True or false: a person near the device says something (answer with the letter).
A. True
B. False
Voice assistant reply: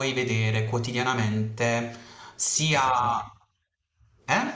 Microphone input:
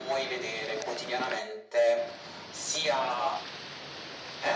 B